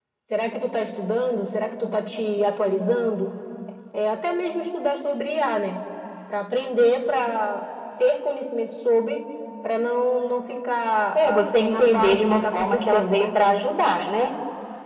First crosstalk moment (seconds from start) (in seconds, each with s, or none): 11.2 s